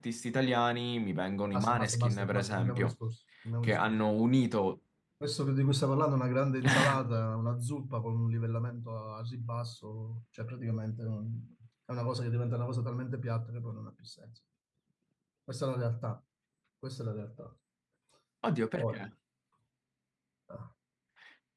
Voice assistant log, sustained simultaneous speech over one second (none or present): present